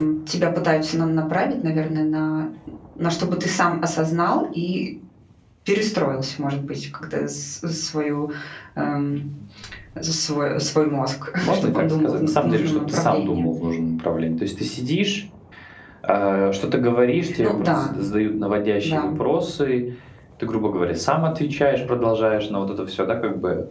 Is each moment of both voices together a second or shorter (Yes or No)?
No